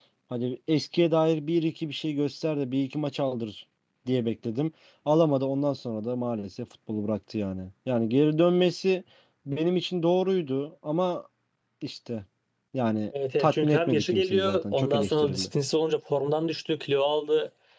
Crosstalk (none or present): present